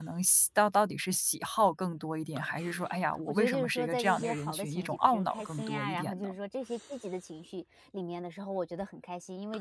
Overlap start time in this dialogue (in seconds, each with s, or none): 3.3 s